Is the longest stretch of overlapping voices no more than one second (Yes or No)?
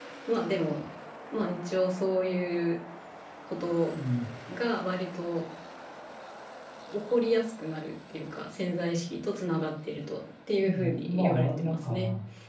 No